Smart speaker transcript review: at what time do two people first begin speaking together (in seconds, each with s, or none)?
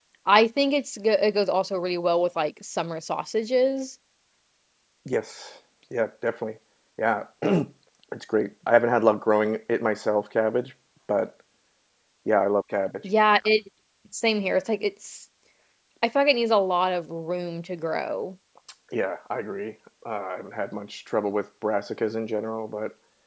none